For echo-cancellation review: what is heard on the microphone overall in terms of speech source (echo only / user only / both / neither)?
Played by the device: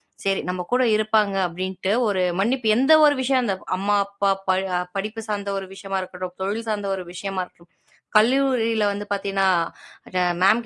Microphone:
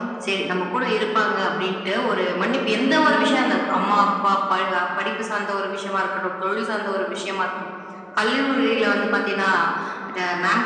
echo only